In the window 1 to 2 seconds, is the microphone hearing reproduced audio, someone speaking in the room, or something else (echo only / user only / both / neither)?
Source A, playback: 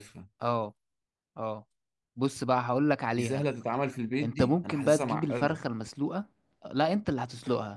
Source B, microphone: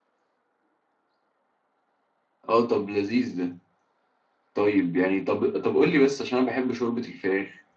neither